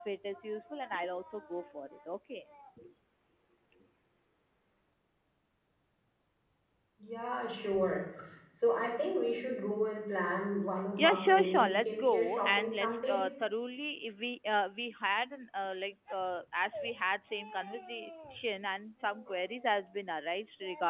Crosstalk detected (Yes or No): Yes